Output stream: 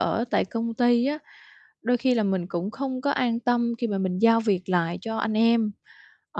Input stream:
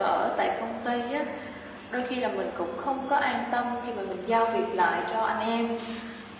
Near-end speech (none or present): none